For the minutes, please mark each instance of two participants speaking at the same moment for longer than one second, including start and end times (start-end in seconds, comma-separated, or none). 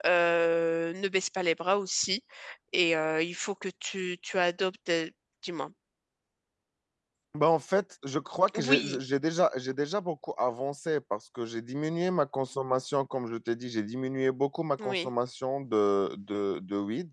none